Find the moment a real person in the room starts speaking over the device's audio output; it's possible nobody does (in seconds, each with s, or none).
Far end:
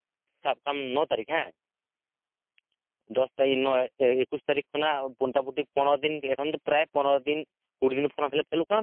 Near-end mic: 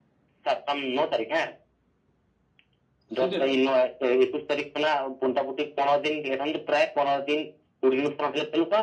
3.1 s